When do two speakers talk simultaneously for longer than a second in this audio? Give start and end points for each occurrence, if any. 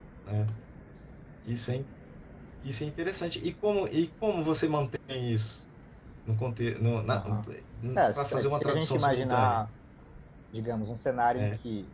8.2-9.7

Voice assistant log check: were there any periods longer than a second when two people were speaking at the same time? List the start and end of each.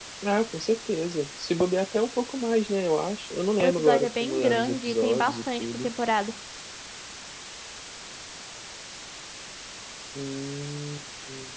3.6-5.9

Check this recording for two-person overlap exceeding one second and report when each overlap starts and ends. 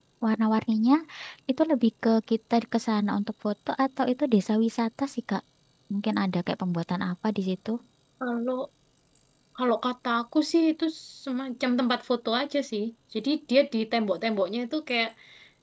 none

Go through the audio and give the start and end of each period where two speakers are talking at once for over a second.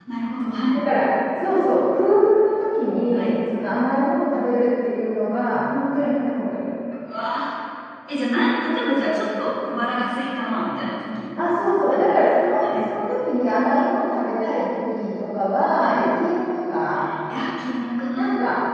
none

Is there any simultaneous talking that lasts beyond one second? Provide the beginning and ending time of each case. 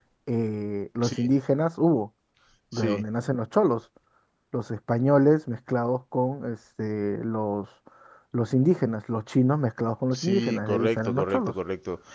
10.1-11.5

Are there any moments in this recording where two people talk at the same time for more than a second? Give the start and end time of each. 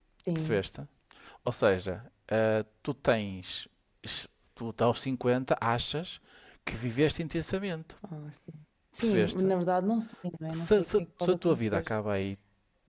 10.5-11.9

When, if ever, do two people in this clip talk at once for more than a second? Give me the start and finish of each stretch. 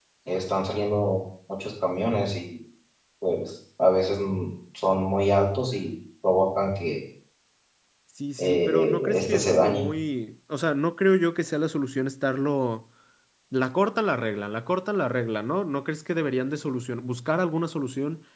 8.4-9.9

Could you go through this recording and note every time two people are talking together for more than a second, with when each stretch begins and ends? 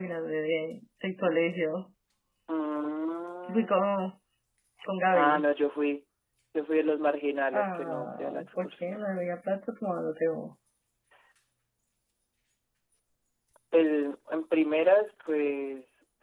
7.5-9.1

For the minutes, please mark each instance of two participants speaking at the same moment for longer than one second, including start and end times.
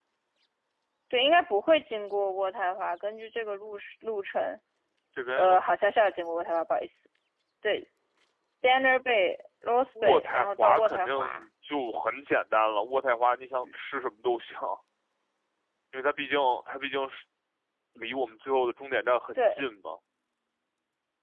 10.0-11.4

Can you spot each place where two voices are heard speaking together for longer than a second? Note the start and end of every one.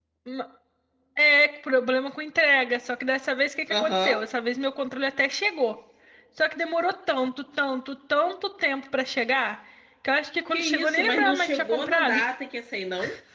10.5-12.2

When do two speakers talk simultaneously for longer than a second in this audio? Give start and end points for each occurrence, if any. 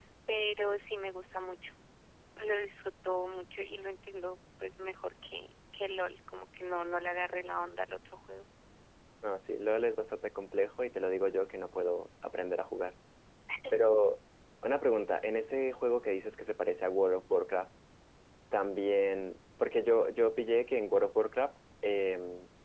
none

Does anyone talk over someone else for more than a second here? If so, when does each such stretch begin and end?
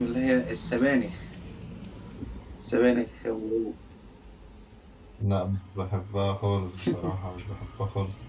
none

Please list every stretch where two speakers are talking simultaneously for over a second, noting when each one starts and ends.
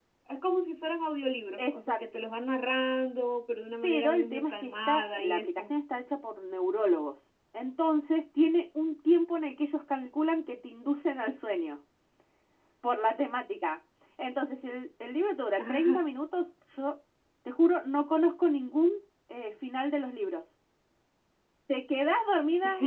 3.8-5.7

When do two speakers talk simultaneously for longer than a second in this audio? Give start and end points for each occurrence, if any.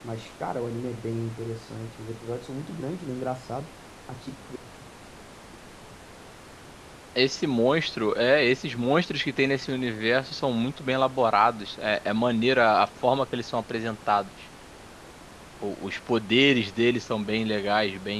none

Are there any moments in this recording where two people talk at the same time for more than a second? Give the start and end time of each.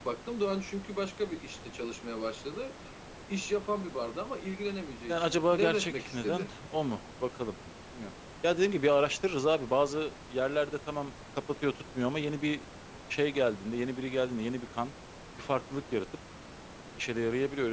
5.1-6.5

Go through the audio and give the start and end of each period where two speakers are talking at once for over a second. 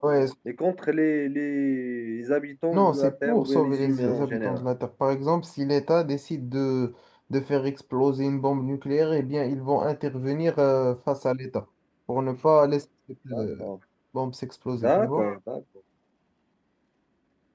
2.7-4.6

